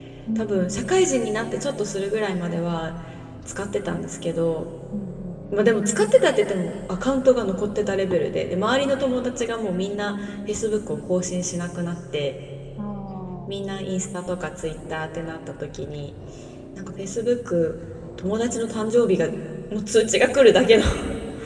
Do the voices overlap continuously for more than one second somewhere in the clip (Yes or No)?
No